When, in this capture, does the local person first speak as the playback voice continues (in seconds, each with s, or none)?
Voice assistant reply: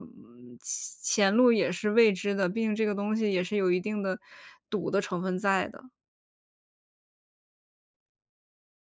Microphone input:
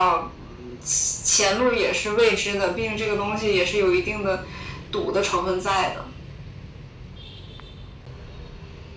none